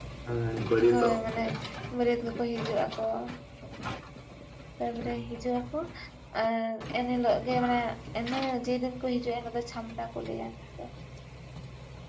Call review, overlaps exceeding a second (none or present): none